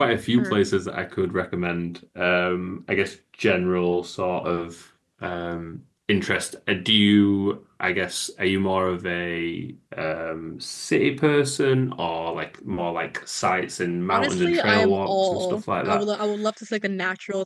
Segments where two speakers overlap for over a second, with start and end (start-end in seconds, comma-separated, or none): 14.1-16.0